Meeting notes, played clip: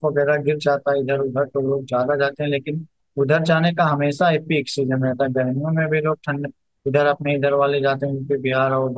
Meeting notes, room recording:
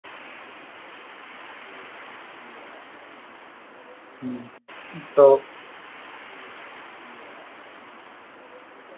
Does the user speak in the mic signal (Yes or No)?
Yes